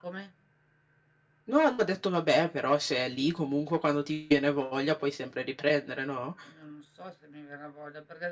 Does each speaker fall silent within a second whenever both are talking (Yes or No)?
Yes